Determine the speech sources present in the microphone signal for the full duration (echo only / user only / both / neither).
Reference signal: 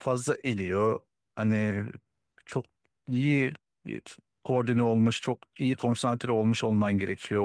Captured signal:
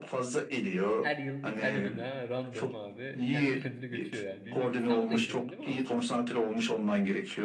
both